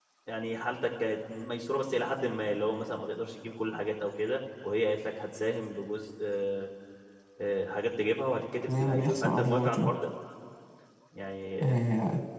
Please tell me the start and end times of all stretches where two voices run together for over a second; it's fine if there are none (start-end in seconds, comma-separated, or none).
8.7-9.9